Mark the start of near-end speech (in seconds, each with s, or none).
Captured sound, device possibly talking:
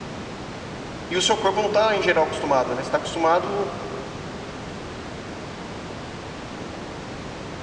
1.1 s